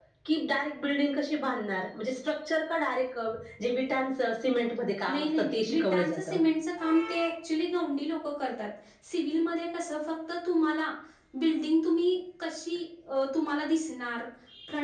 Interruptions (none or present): present